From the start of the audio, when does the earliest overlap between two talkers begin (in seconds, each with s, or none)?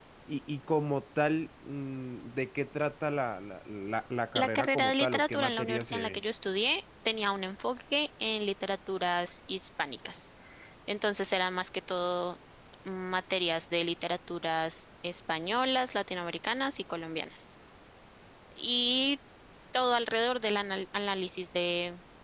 4.3 s